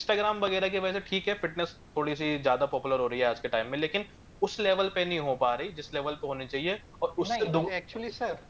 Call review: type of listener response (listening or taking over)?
taking over